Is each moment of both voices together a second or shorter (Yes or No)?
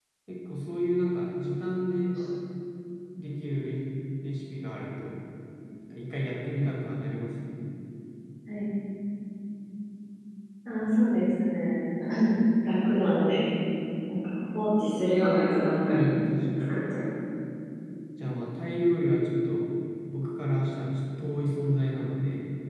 Yes